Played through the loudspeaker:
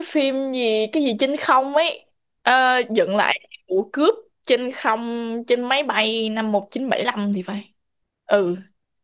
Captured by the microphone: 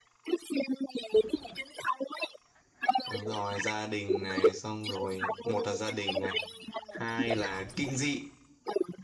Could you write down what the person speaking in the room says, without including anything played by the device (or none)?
Đúng rồi, gia đình này, xong rồi một là gia đình này, hai là kinh dị,